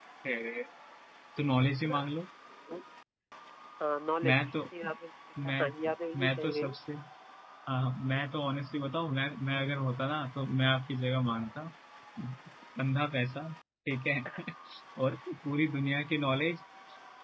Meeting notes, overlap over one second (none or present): present